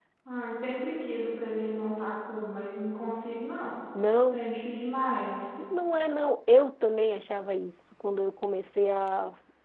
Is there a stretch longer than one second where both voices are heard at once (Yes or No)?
No